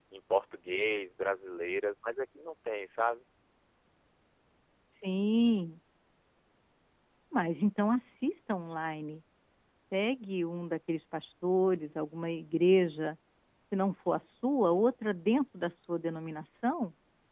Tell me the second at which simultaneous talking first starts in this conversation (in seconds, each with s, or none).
none